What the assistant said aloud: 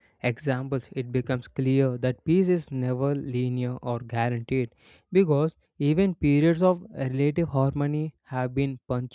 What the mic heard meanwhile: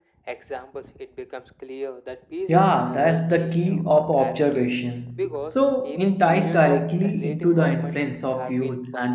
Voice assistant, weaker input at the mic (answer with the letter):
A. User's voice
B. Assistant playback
B